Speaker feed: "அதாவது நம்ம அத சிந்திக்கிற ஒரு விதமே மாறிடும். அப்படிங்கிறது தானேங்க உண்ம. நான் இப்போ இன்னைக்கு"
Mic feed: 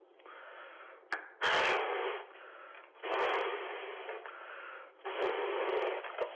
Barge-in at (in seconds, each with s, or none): none